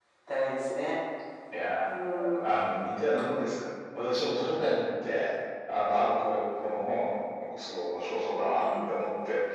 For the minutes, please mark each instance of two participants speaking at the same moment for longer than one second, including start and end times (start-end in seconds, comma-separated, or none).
none